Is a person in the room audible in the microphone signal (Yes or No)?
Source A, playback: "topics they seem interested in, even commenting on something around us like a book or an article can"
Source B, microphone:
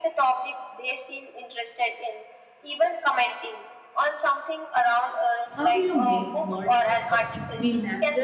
Yes